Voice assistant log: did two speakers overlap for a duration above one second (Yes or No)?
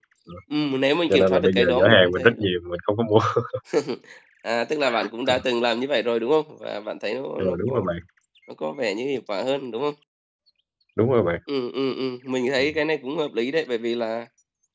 Yes